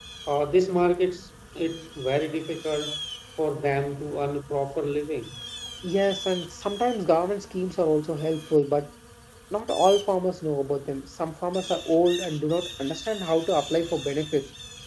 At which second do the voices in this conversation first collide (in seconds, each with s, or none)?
none